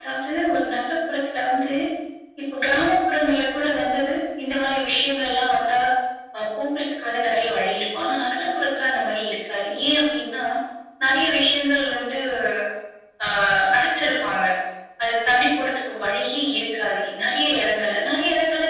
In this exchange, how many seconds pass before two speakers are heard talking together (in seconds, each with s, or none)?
none